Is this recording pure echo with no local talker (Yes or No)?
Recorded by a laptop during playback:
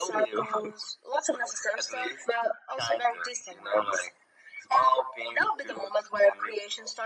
Yes